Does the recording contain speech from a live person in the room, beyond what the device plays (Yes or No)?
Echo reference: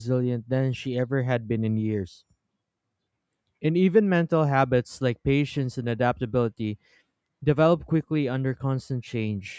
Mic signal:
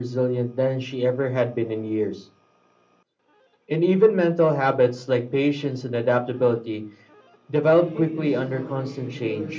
Yes